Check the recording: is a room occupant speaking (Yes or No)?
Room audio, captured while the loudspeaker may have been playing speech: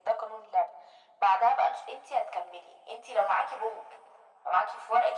No